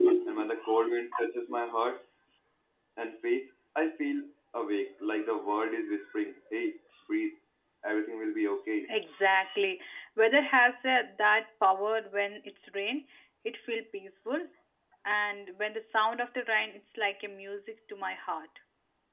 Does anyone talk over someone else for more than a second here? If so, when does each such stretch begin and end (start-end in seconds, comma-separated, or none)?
none